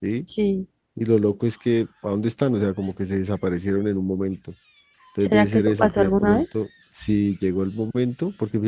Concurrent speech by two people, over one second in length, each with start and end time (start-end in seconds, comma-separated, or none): 5.2-6.4